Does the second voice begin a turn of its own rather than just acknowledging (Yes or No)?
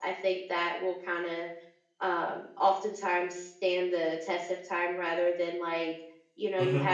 No